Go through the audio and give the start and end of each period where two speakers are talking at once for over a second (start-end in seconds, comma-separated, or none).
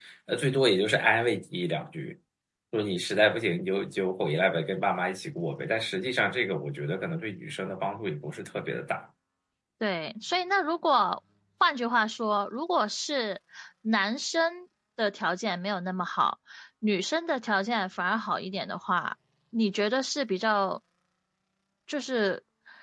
none